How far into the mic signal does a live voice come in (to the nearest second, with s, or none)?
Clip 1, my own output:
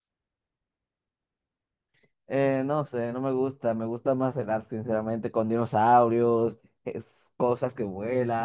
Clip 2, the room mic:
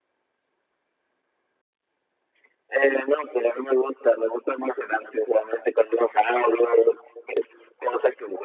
none